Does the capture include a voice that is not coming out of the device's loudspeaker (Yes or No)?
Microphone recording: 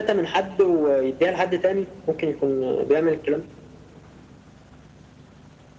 No